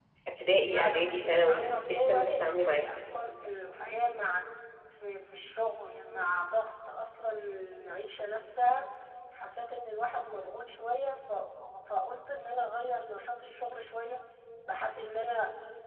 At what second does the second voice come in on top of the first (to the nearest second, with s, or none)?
1 s